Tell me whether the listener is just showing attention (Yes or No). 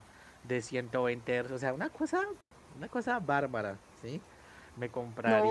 No